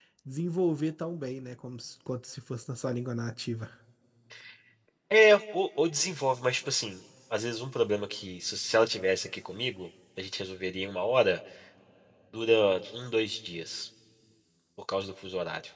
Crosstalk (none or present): none